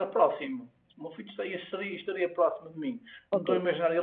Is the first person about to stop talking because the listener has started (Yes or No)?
No